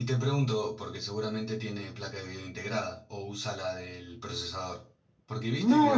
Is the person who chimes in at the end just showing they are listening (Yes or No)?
No